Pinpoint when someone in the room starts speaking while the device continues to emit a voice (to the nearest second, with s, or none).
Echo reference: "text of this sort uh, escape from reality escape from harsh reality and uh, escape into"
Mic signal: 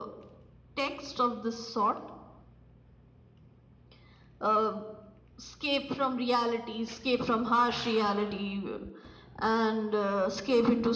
none